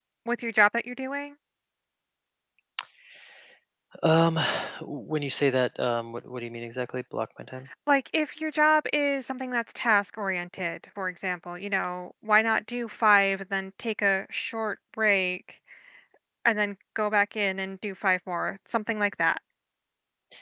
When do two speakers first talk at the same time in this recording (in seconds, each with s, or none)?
none